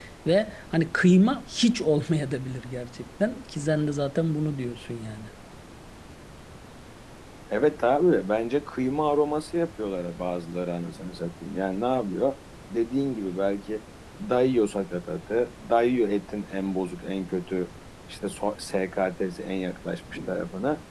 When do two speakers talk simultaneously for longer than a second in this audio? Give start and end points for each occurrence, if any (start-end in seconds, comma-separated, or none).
none